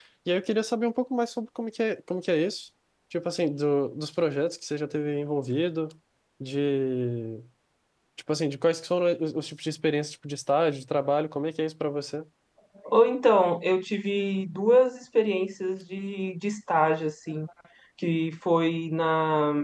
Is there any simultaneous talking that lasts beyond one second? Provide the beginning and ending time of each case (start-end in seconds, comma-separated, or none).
none